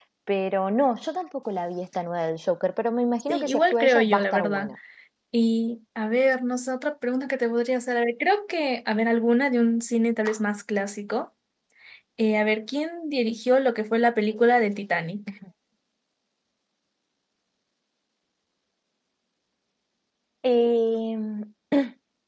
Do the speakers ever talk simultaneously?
Yes, from 3.3 s

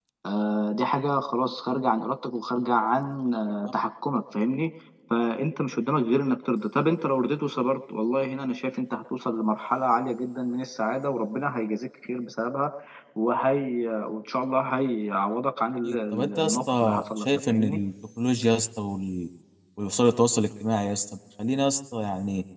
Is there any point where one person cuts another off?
Yes, from 15.8 s

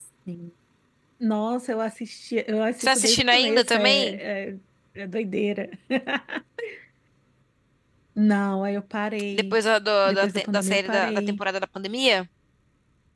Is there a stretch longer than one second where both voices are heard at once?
Yes, from 2.8 s

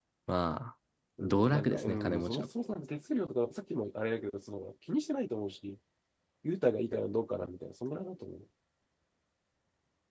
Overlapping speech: Yes, from 1.2 s

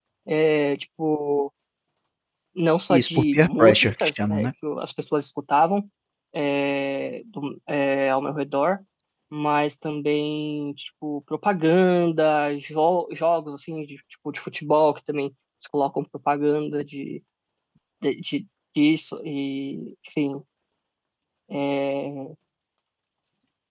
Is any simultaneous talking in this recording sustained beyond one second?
Yes, from 2.9 s

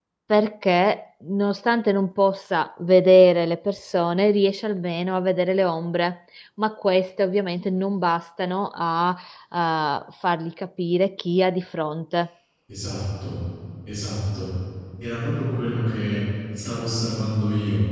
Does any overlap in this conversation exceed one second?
No

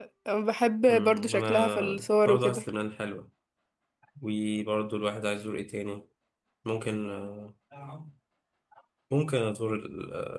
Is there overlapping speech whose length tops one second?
Yes, from 0.9 s

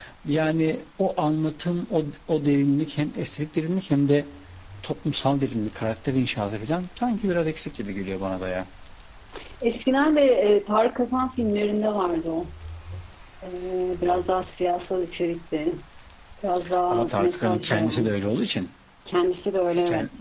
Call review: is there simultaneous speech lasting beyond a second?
Yes, from 16.9 s

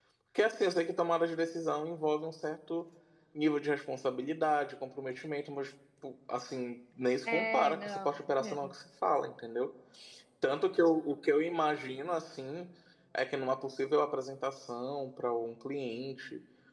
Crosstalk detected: Yes, from 7.2 s

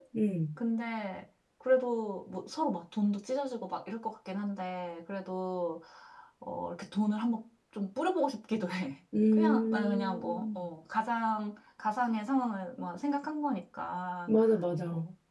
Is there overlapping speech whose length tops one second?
Yes, from 9.1 s

